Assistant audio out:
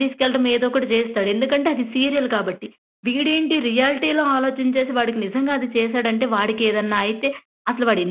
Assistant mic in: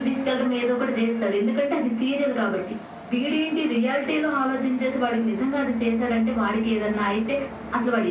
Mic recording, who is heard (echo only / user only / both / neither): echo only